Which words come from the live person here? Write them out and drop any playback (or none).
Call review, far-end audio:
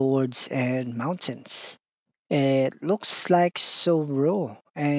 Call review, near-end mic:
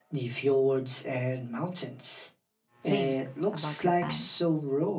things about Japan.